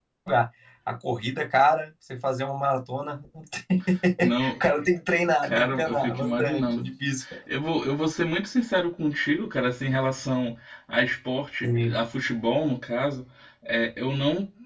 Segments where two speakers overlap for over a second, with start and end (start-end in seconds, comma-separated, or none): 5.4-6.8